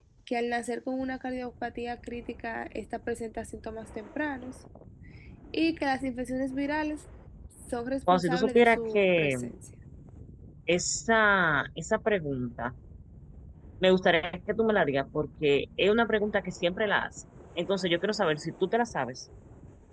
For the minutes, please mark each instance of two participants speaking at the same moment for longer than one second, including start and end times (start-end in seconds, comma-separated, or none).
8.1-9.4